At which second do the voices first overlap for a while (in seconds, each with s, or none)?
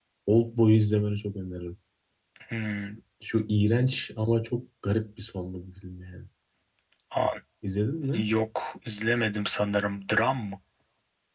none